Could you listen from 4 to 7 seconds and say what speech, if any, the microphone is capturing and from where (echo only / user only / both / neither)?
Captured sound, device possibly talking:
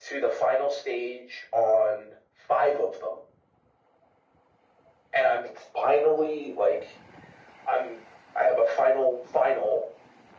echo only